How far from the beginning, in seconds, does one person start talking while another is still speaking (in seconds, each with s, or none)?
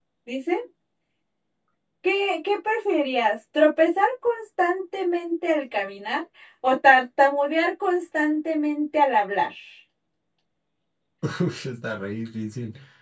none